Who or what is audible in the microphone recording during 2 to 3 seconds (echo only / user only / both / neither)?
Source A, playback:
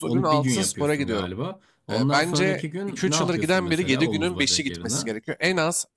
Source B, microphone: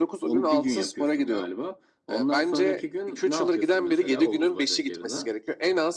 echo only